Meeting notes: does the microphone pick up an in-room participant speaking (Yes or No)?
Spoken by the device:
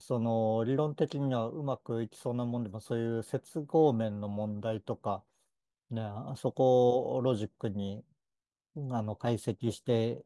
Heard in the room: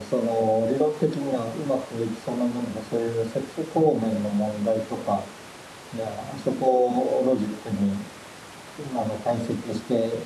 No